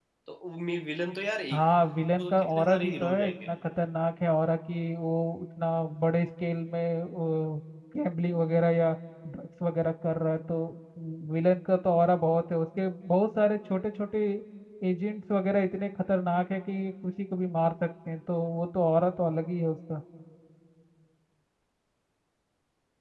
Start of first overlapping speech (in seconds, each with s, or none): 2.2 s